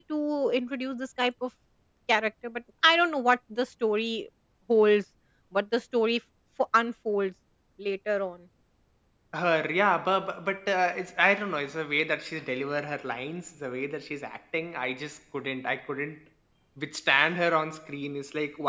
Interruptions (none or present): none